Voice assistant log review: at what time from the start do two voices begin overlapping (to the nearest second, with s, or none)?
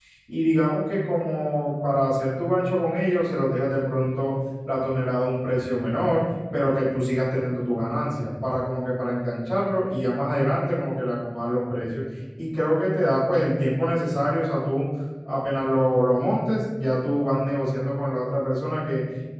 none